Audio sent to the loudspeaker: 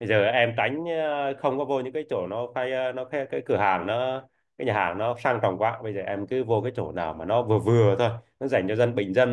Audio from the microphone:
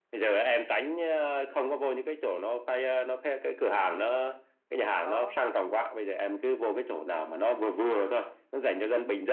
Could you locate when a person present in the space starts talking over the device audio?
5.0 s

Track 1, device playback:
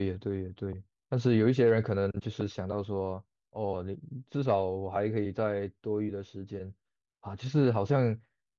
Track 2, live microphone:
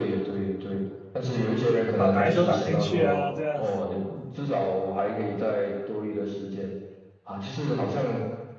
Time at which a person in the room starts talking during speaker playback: 1.9 s

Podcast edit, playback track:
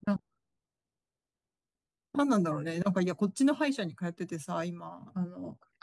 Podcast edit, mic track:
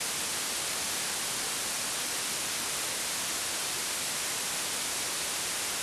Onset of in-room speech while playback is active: none

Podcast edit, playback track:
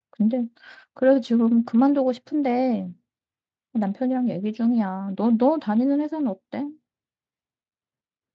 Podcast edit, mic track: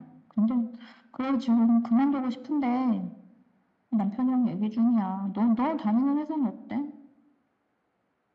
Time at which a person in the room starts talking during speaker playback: none

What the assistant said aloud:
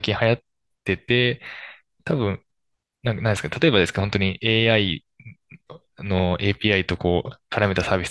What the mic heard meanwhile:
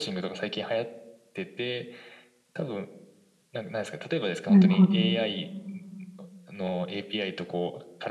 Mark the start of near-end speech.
4.5 s

